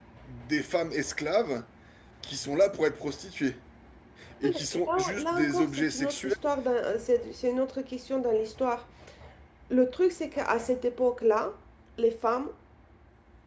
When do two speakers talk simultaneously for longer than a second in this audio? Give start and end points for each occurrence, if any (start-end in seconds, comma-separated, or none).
4.9-6.3